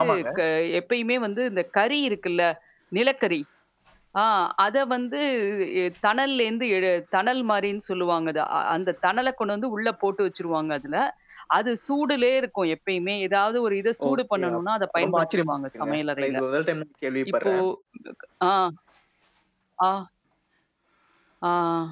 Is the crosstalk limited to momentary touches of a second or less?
No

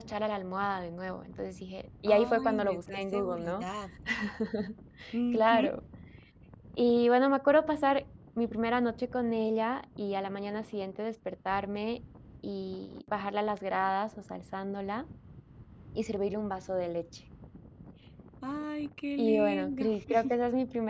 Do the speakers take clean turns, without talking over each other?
No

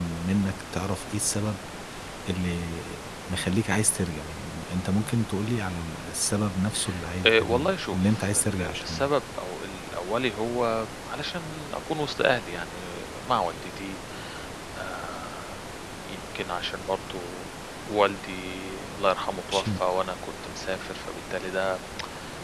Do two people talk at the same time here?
Yes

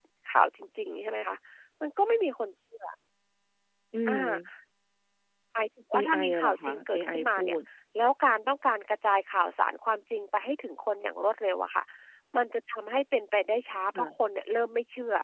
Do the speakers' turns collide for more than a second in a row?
Yes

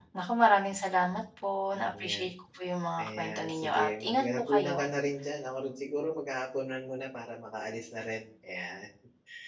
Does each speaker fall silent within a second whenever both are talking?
No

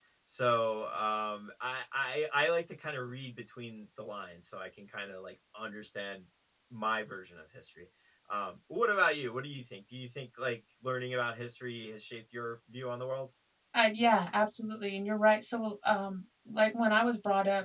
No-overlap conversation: Yes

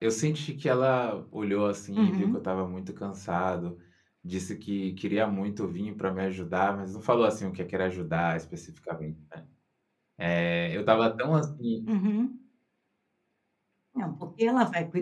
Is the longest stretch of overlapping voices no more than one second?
Yes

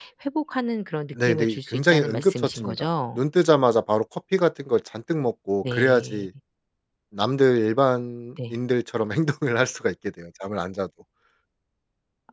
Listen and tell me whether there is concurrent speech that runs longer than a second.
Yes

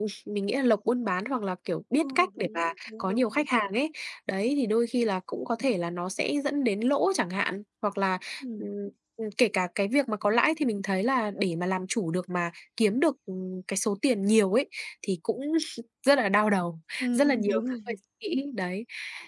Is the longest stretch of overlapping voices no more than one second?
No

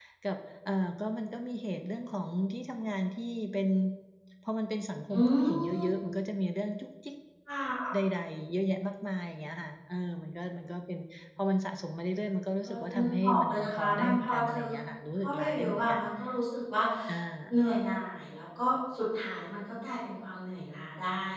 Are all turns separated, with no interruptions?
No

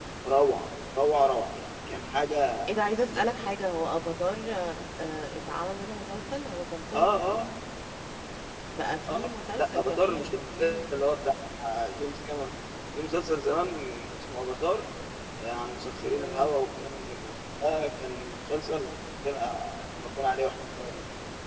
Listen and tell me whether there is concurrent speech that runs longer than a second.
Yes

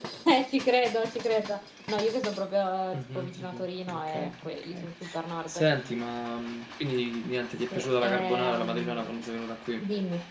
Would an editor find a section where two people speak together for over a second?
Yes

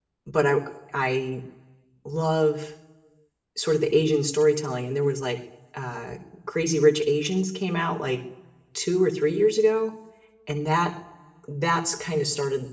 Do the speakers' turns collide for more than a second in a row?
No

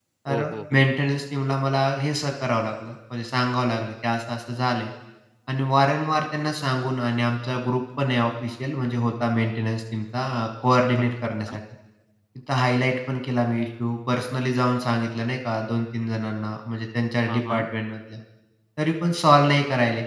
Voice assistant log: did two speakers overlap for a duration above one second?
No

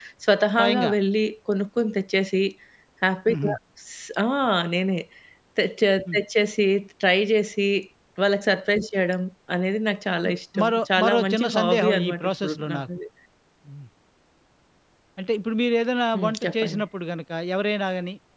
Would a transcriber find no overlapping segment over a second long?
No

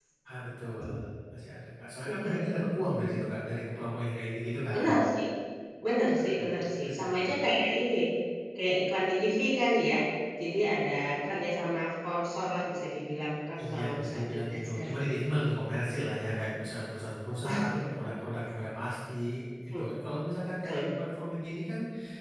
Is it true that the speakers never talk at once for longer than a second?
No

